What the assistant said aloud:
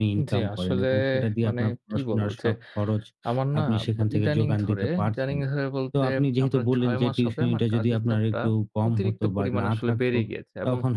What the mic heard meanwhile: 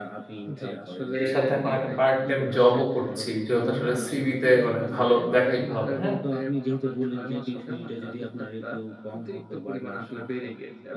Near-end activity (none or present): present